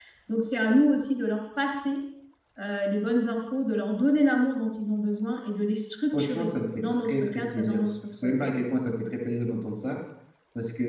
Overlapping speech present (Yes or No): Yes